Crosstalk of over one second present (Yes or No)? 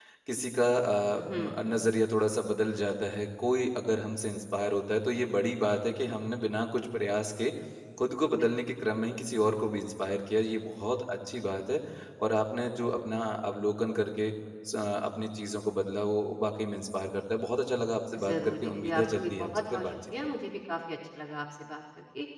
Yes